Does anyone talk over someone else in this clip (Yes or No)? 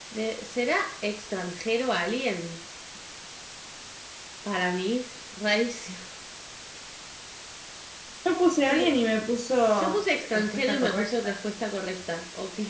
Yes